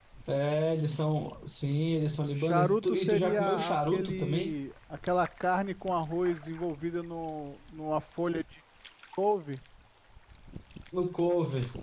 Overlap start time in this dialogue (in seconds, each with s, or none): 2.4 s